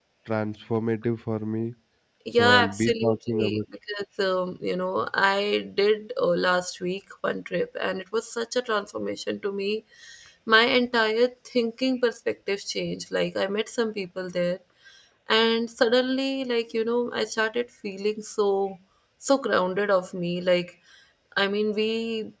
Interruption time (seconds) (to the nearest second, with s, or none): 2 s